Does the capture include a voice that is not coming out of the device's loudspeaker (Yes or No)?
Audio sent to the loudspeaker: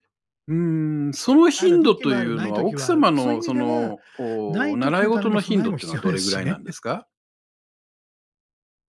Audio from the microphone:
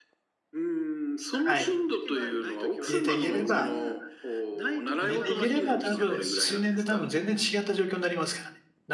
Yes